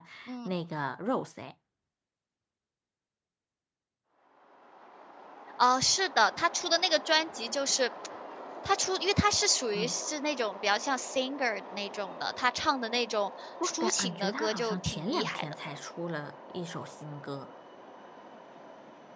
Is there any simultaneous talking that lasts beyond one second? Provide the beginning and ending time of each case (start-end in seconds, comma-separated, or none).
13.6-15.4